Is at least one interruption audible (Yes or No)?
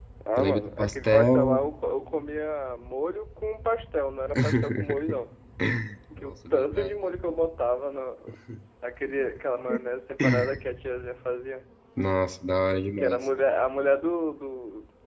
Yes